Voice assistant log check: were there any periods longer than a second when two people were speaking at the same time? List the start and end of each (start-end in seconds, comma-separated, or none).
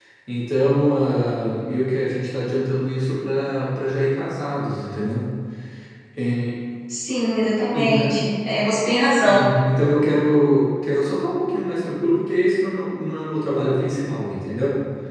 none